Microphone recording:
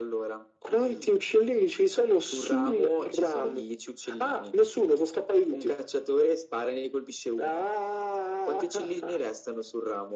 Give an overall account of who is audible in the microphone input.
echo only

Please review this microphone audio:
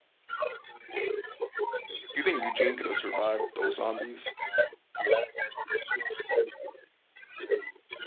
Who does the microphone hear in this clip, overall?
both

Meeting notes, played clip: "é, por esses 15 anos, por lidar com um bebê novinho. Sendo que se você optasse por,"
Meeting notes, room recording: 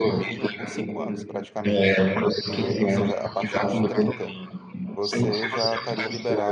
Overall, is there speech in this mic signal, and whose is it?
both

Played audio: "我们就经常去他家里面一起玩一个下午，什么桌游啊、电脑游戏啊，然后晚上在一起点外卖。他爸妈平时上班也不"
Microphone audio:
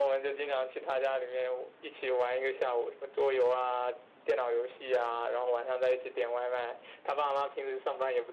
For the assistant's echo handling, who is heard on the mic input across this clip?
echo only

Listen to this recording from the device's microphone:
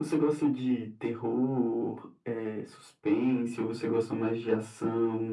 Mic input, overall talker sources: echo only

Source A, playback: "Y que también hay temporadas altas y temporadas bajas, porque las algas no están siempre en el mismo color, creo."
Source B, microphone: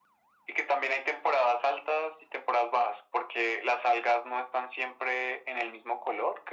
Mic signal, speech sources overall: echo only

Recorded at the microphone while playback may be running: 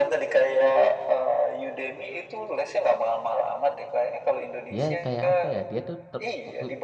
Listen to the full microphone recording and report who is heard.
both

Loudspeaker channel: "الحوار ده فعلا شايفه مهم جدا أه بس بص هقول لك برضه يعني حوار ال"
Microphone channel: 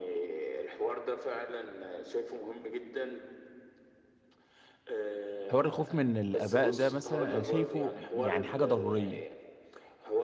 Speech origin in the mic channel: both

